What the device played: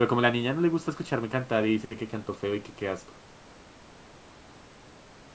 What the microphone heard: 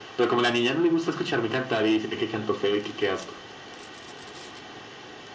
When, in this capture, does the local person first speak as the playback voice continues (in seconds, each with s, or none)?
none